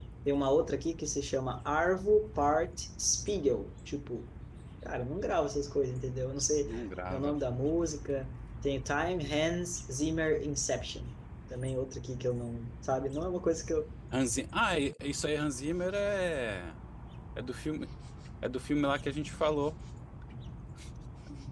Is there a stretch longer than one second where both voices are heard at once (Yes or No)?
No